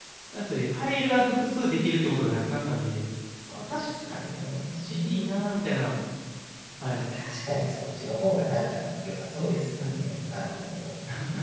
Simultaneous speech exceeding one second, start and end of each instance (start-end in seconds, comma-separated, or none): 3.6-5.2